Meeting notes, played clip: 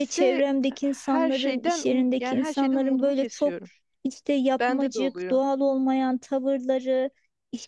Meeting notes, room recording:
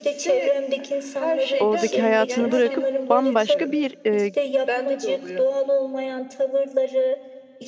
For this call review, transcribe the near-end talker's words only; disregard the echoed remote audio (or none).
oradaki hayatını bırakıp bambaşka bir e,